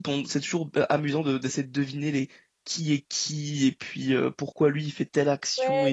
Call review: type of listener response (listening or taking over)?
taking over